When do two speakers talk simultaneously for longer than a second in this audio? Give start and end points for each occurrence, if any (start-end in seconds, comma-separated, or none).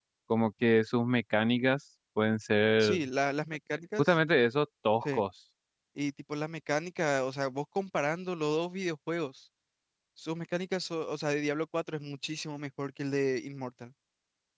none